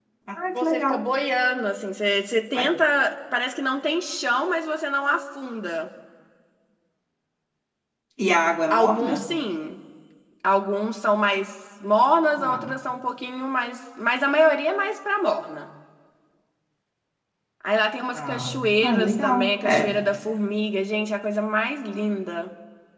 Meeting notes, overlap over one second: present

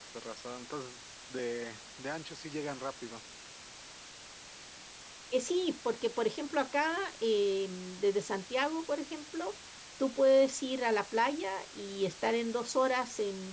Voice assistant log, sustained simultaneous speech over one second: none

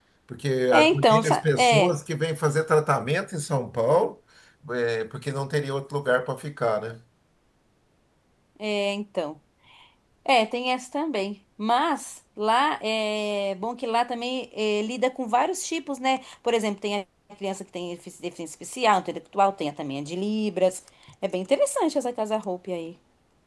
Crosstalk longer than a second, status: present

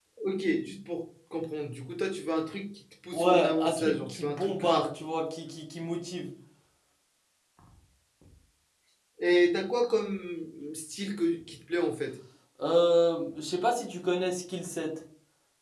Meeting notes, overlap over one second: present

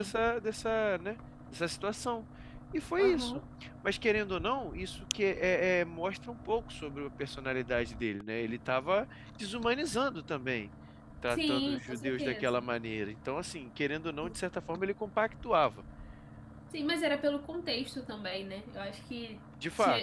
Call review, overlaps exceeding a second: present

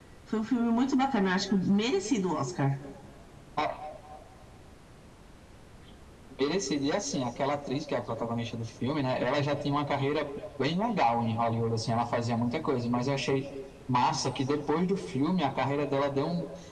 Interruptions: none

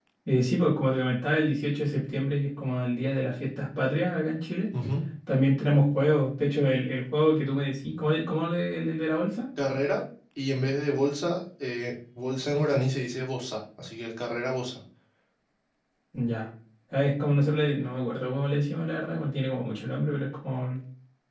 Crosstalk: none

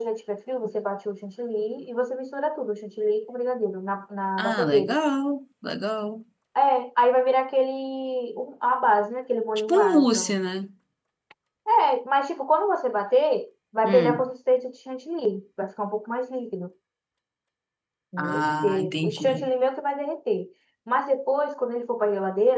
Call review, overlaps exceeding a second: present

